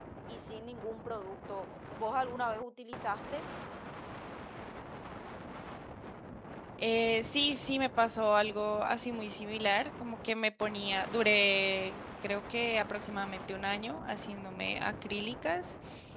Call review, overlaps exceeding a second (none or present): none